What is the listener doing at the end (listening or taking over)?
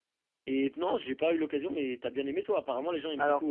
taking over